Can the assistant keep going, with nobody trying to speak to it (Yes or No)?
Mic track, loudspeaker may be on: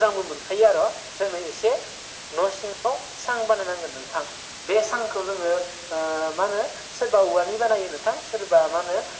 Yes